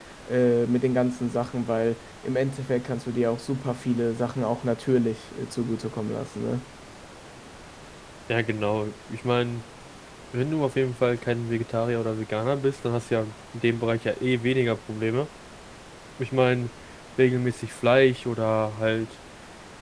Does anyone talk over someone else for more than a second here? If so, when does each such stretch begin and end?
none

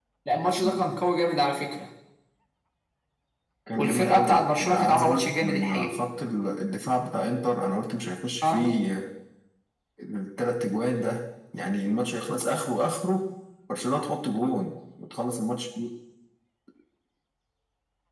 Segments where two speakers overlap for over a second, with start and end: 3.8-5.9

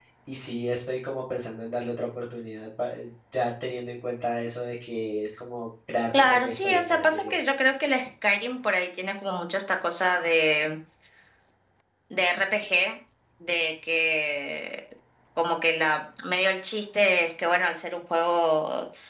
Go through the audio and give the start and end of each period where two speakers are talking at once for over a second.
6.1-7.4

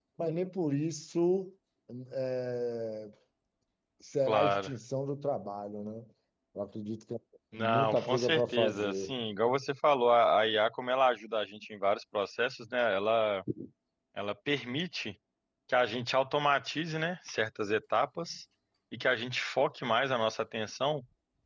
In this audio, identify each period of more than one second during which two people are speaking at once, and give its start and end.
7.5-9.1

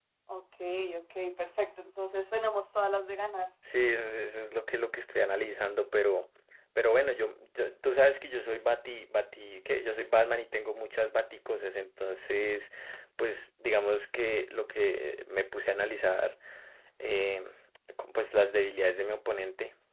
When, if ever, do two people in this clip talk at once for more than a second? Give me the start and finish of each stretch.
none

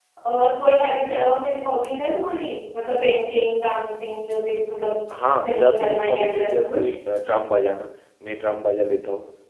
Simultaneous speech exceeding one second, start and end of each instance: 5.5-6.9

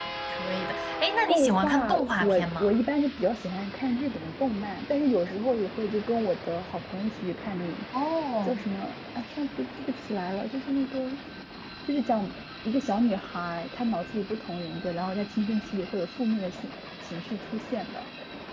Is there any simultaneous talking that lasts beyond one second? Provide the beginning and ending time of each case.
1.3-2.7

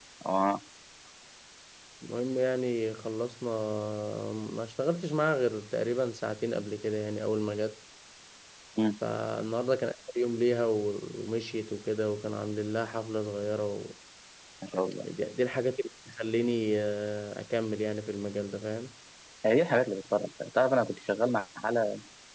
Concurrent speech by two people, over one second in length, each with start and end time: none

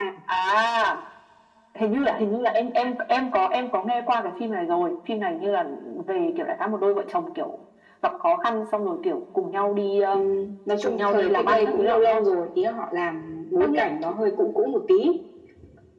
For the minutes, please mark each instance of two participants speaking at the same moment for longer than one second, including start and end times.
10.8-12.2

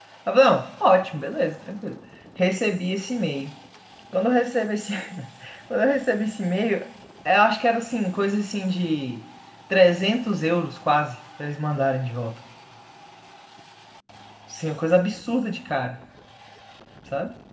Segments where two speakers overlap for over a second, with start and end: none

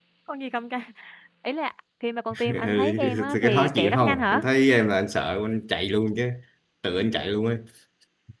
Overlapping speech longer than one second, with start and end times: 2.5-4.5

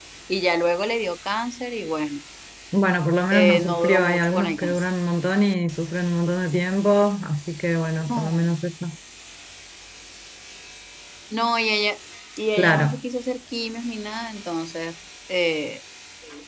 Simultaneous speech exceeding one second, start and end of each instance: 3.3-4.8

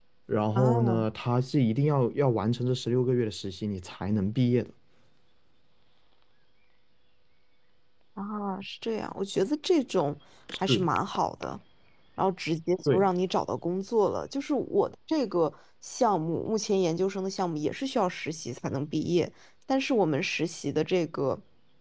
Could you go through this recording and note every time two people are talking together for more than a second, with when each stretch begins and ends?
none

